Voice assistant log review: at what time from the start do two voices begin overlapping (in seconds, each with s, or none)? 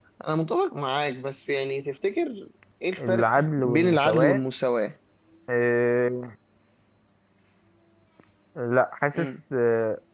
3.0 s